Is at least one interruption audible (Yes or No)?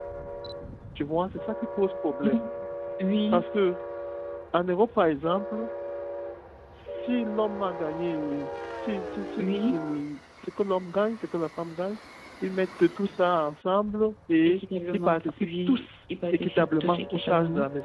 Yes